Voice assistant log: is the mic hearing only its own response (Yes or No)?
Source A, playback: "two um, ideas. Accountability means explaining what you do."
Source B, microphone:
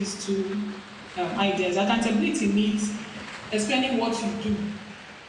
Yes